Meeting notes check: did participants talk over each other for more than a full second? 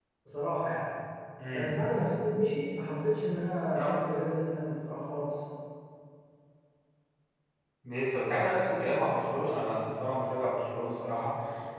No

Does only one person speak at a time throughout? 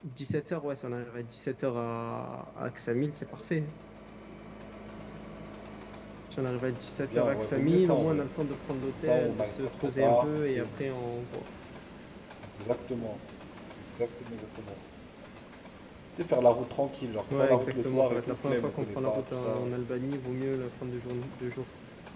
No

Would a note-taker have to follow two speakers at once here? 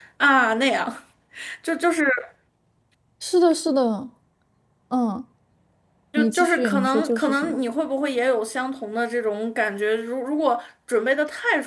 Yes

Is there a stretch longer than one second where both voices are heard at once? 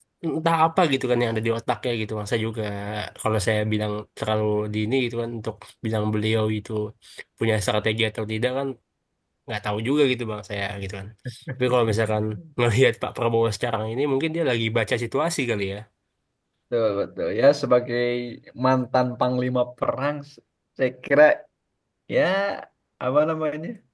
No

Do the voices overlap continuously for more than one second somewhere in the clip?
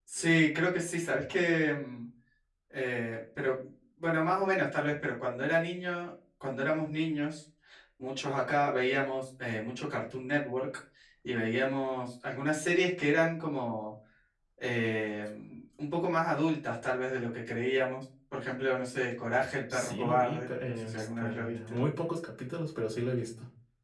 Yes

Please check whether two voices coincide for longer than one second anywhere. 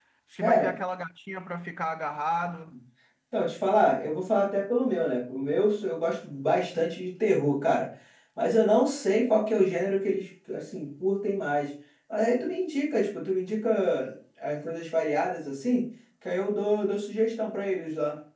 No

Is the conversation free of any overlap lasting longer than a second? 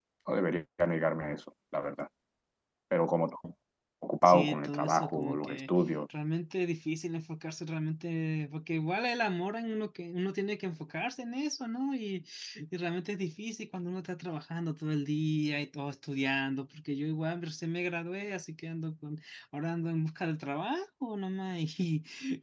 No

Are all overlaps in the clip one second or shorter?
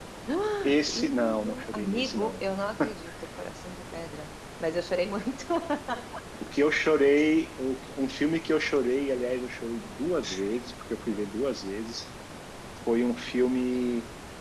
No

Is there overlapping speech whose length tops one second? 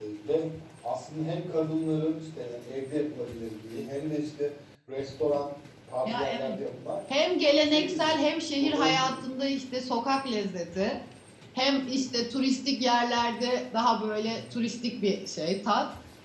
Yes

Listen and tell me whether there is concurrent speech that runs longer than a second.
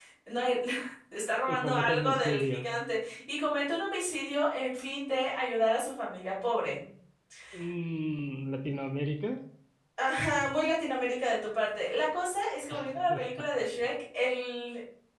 Yes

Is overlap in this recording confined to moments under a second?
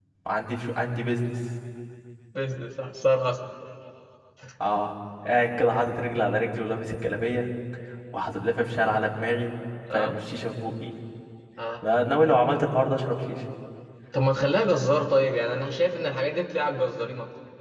Yes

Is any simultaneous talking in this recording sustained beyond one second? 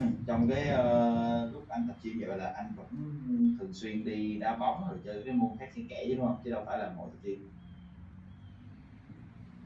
No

